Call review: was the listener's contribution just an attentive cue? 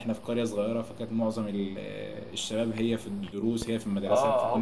No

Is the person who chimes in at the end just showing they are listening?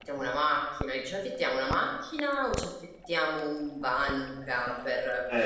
No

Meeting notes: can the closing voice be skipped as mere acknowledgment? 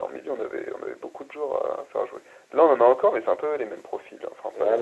No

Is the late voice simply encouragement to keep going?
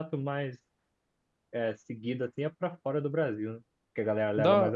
No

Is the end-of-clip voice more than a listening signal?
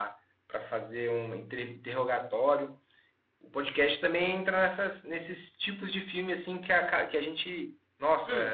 No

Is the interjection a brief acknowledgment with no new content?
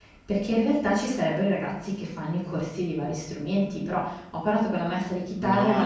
No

